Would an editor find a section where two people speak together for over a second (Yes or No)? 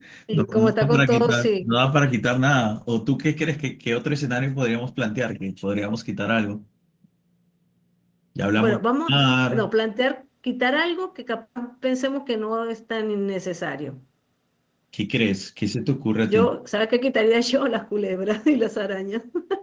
Yes